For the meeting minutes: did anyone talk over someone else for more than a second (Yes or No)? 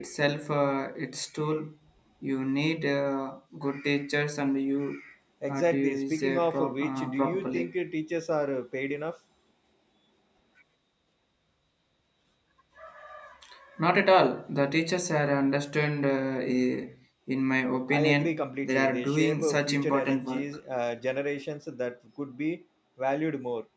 Yes